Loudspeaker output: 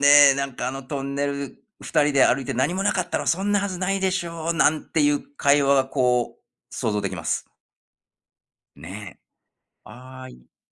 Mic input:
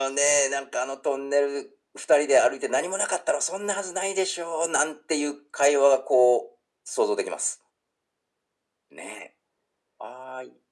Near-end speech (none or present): none